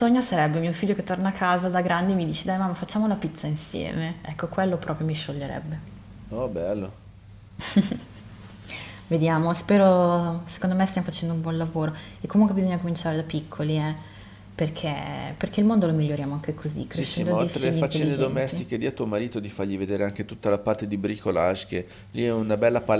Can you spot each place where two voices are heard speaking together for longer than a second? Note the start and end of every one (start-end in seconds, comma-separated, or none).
16.9-18.6